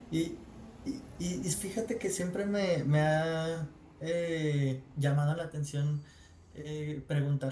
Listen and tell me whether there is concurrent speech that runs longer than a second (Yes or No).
No